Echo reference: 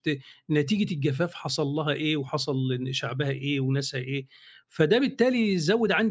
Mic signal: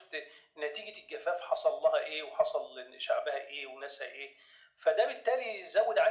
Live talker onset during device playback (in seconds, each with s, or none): none